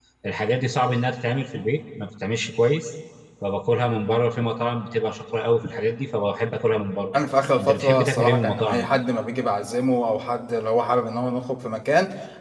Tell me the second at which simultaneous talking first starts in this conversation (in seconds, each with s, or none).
7.6 s